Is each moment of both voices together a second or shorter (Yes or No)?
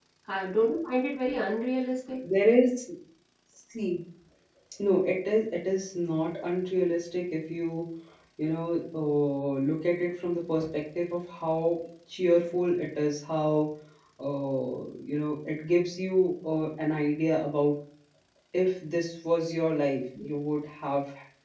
Yes